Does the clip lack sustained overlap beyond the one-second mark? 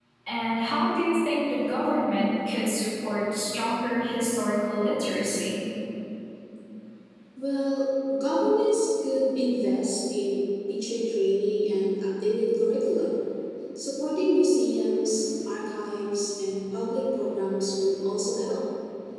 Yes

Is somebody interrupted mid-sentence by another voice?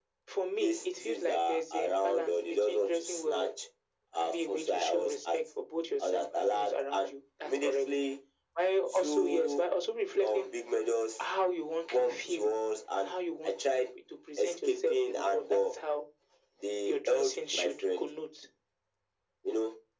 Yes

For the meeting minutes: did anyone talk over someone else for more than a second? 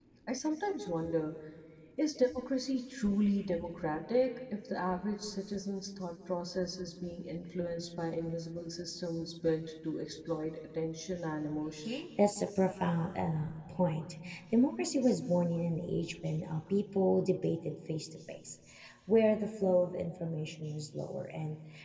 No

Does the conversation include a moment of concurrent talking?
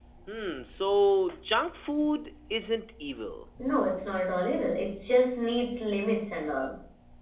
No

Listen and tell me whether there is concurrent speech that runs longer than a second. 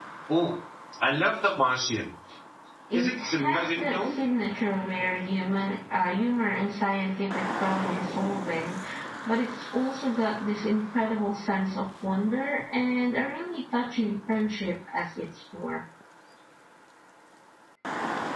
Yes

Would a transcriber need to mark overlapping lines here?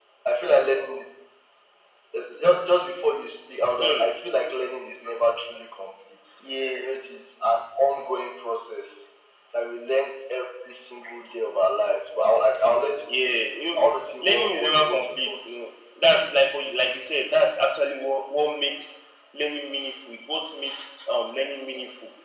Yes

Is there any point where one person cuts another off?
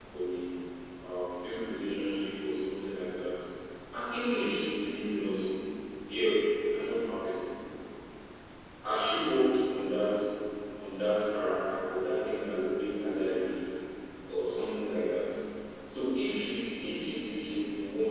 No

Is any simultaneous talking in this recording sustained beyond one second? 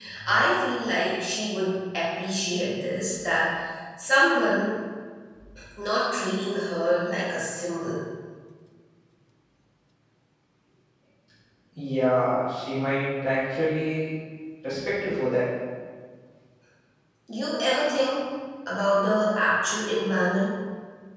No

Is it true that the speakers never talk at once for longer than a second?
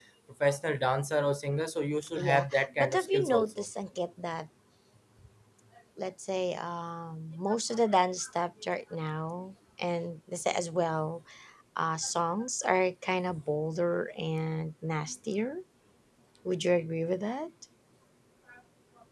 No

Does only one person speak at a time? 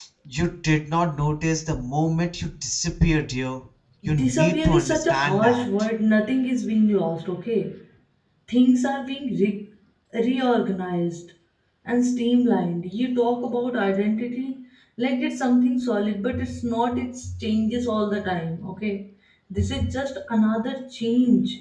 No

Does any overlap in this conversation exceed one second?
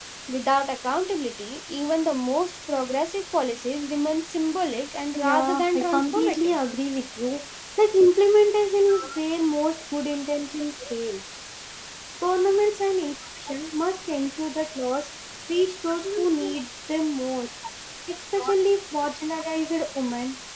Yes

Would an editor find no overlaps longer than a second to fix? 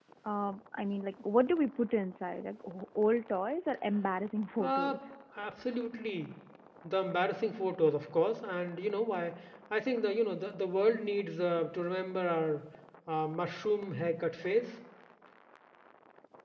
Yes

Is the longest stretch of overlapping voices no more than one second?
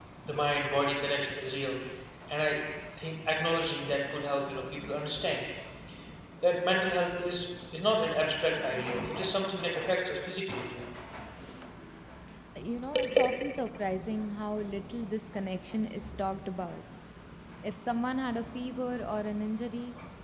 Yes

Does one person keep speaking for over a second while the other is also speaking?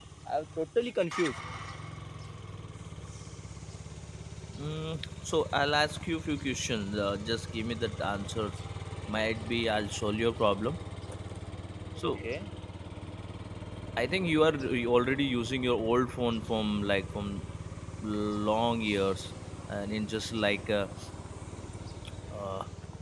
No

